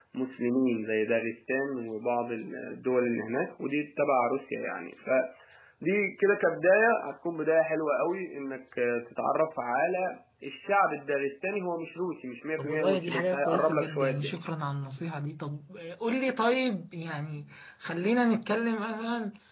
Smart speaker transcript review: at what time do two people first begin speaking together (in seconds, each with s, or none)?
12.6 s